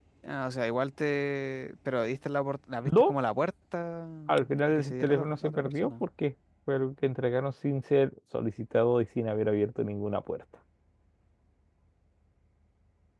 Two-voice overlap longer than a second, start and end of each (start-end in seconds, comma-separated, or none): 4.3-6.0